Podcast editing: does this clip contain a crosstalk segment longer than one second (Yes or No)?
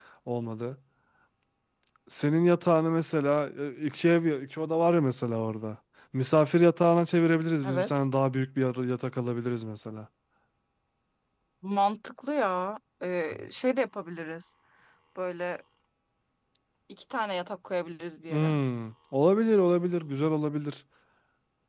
No